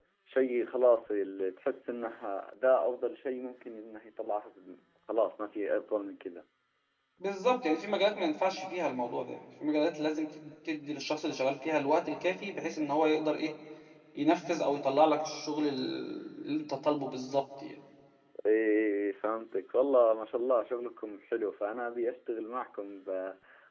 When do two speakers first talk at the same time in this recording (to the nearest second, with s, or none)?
none